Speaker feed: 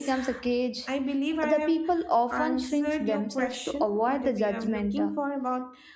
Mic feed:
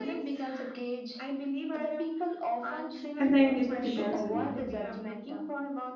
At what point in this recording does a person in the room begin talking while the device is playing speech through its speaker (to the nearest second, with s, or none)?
3 s